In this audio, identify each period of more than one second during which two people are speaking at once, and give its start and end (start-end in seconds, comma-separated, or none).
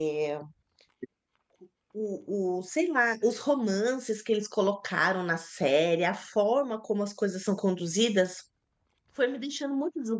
none